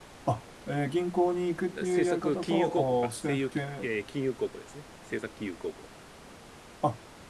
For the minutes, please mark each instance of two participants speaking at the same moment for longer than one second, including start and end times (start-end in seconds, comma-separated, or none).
1.8-3.9